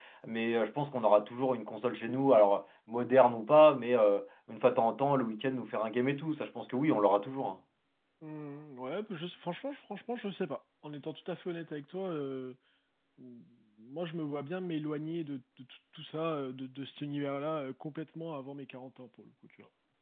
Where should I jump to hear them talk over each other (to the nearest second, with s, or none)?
none